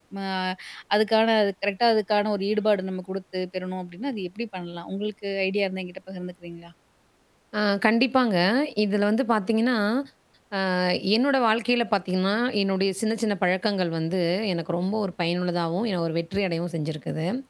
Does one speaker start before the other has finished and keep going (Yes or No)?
No